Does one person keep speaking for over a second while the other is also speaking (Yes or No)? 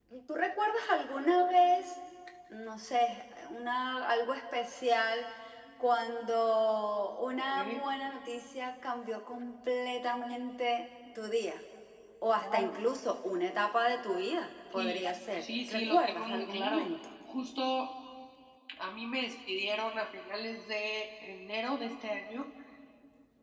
Yes